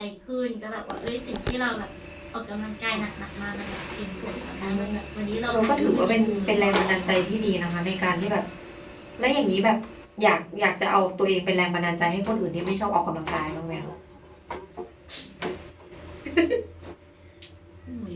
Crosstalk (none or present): present